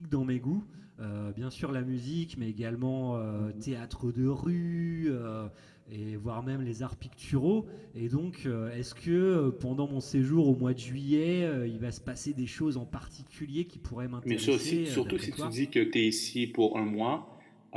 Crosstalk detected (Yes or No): Yes